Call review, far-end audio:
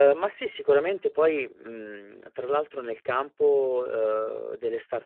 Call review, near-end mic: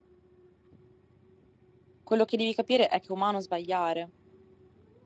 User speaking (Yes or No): Yes